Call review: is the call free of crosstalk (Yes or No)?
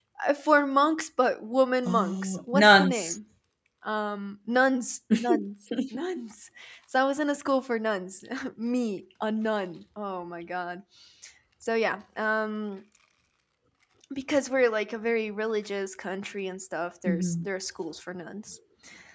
No